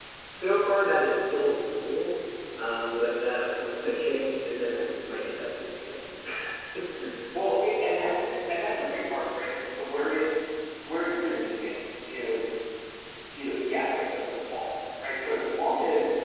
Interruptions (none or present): none